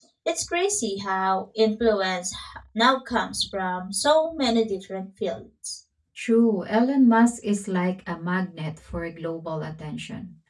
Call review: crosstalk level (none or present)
none